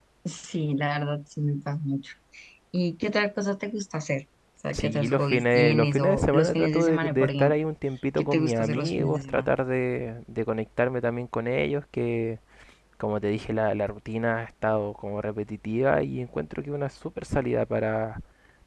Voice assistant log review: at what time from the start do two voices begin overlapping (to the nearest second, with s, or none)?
5 s